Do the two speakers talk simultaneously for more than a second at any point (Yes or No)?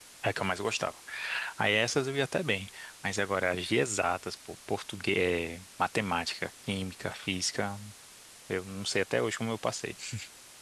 No